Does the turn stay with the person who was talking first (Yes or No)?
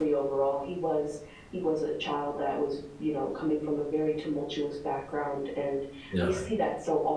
Yes